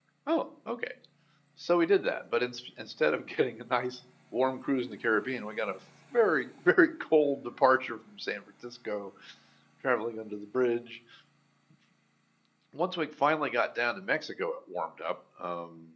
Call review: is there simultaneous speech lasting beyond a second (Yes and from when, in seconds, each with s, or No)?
No